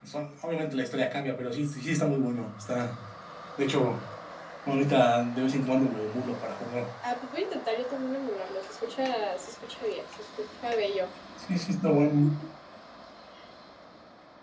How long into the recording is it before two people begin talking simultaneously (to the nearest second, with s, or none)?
none